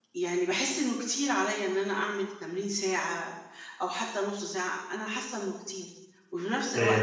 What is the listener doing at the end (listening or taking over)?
listening